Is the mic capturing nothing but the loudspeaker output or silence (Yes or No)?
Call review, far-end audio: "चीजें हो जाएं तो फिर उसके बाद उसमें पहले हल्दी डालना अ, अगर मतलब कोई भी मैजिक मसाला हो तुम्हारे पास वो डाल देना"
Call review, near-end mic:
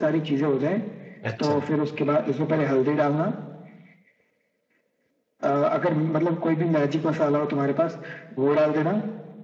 No